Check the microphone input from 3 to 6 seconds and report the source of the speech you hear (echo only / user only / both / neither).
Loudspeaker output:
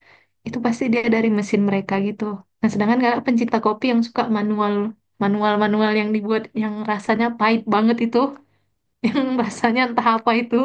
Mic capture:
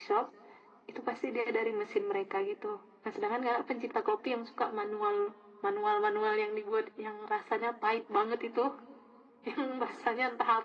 echo only